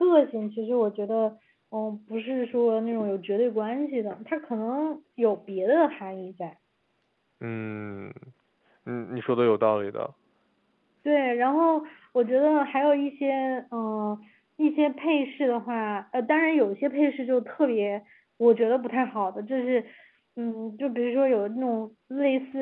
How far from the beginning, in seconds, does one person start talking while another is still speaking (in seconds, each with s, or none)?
none